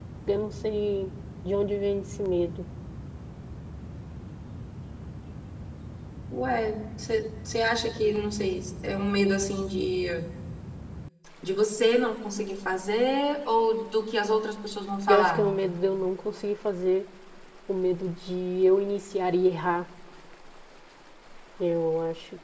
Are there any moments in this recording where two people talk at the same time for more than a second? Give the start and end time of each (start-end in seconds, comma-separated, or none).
none